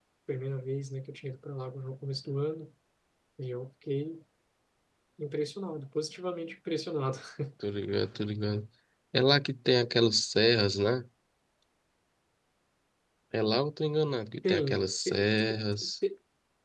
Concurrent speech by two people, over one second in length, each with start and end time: 14.5-15.9

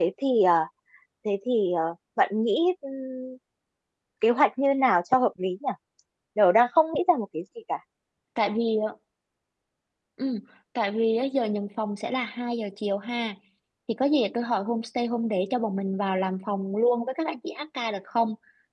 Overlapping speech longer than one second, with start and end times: none

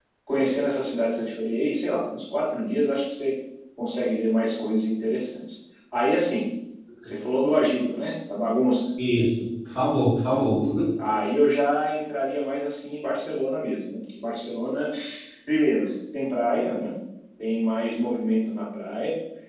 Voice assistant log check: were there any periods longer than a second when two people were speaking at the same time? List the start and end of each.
none

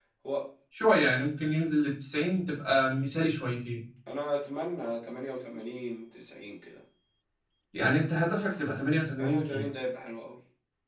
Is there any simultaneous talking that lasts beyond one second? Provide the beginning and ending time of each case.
none

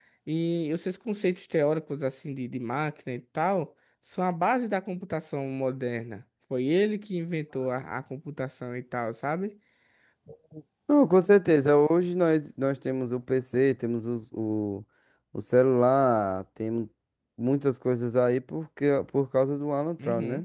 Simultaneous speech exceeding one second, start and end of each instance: none

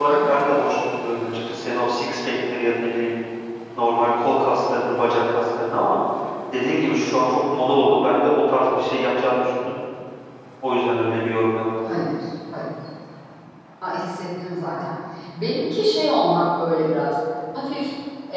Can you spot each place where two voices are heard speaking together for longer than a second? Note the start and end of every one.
none

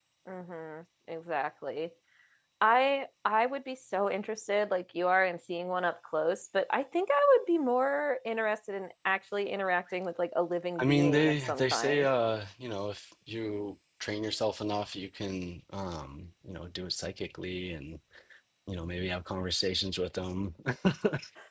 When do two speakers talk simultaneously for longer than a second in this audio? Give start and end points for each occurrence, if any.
10.8-12.1

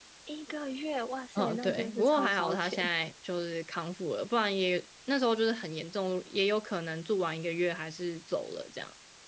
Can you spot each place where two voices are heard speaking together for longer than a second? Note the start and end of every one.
1.4-2.8

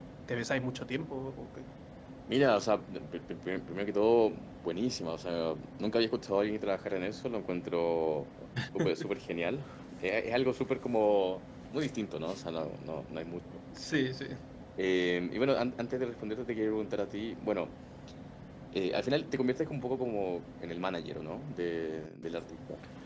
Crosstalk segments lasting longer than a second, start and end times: none

